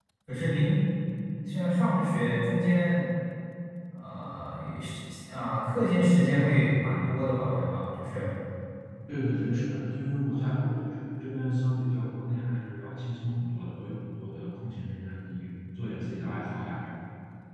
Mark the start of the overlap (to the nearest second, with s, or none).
none